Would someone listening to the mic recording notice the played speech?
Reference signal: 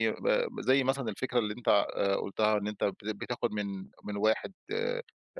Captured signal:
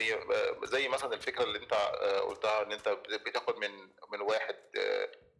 Yes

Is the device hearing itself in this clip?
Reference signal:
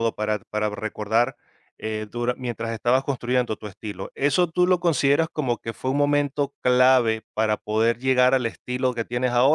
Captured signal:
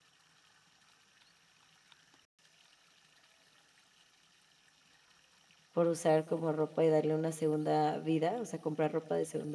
No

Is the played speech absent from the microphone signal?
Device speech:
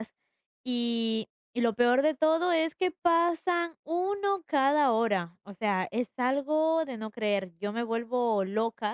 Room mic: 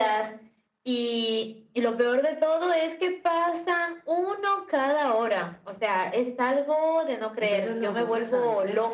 No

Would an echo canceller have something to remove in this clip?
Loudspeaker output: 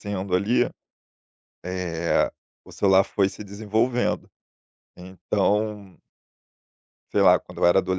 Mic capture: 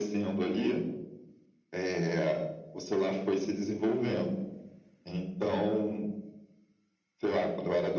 Yes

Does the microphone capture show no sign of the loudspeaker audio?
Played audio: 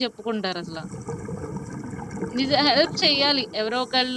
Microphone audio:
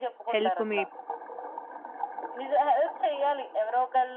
No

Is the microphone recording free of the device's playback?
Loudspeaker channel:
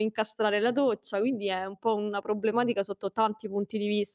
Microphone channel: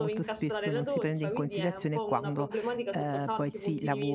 No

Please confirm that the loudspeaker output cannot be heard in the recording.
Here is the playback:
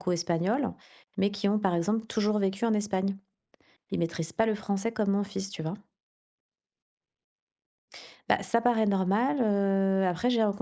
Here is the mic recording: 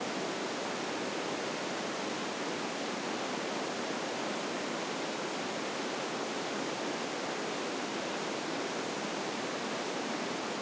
Yes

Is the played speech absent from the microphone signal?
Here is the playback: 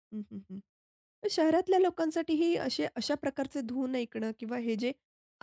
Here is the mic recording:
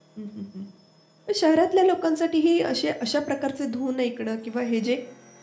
No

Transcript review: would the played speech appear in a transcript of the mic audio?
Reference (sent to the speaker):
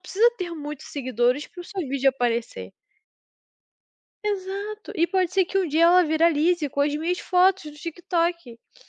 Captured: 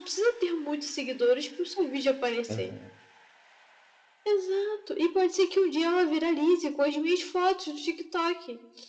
Yes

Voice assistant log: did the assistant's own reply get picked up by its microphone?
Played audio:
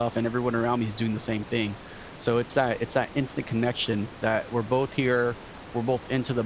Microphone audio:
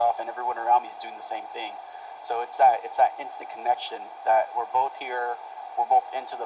Yes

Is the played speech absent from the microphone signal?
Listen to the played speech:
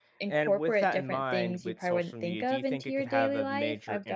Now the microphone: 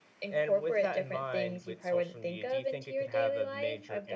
No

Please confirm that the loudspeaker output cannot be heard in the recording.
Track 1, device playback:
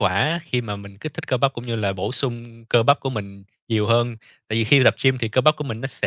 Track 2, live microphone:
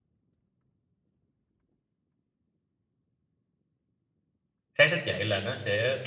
Yes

